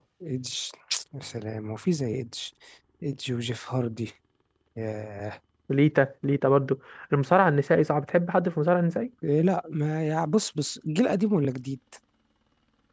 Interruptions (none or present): none